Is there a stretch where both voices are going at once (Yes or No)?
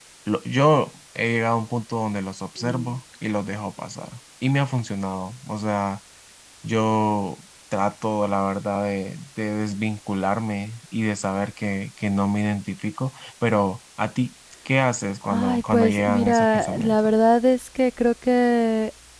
Yes